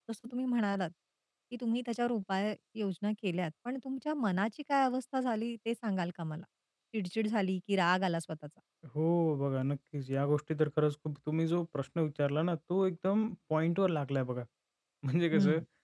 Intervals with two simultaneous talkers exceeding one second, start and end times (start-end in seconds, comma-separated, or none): none